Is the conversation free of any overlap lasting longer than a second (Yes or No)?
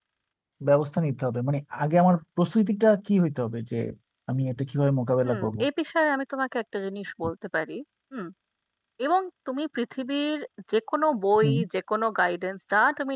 Yes